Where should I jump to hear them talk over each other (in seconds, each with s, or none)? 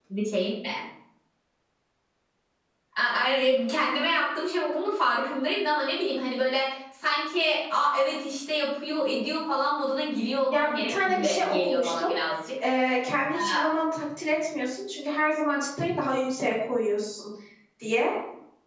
10.5 s